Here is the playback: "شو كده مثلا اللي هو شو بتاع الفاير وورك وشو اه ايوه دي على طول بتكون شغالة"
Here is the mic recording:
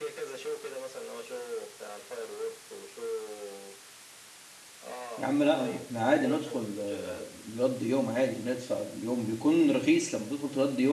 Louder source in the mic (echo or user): user